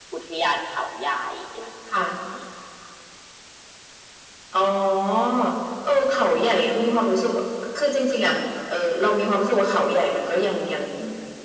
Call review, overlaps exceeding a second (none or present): none